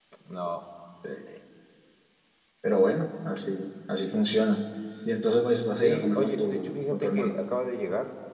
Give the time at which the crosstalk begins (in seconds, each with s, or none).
5.8 s